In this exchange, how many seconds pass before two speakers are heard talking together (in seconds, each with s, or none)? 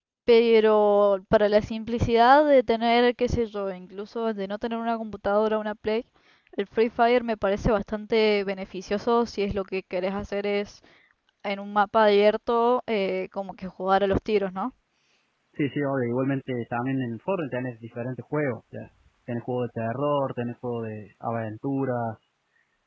none